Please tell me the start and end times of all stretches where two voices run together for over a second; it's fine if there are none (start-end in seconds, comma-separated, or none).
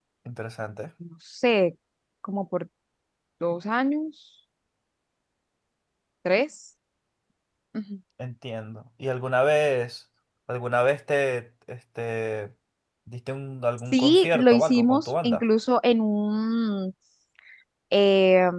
13.9-15.4